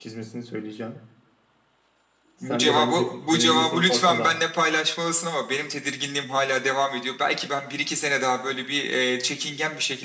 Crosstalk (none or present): present